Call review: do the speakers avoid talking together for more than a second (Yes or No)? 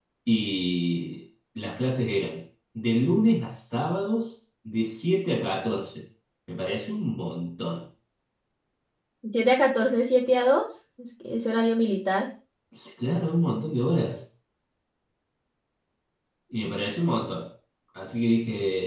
Yes